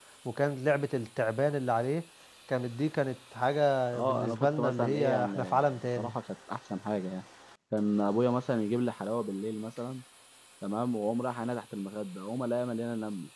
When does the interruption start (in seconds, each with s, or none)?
3.9 s